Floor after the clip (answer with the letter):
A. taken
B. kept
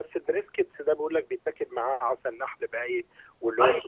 B